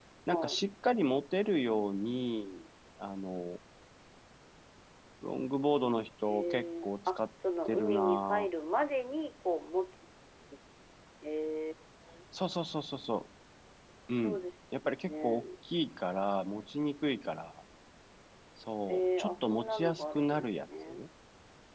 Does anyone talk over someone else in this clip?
Yes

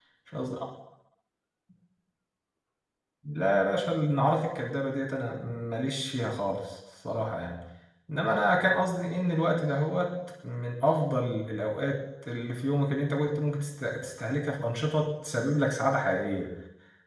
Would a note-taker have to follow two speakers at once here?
No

